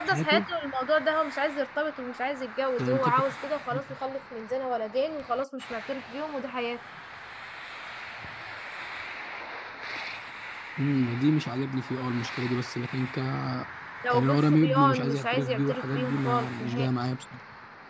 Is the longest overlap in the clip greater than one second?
Yes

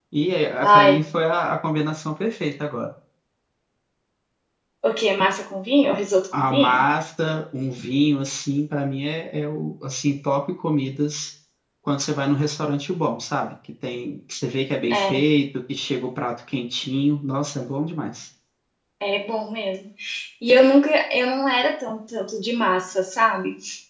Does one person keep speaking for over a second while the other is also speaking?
No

